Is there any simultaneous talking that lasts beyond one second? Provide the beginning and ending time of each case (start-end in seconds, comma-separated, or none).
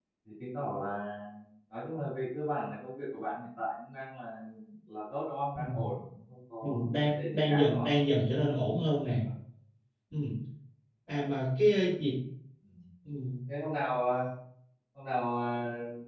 6.6-7.9